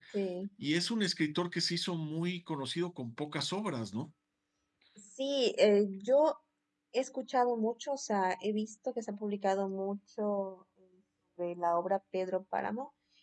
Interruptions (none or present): none